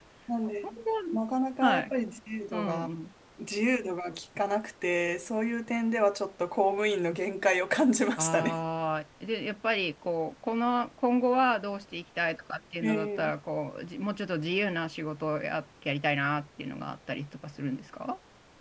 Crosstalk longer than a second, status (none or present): none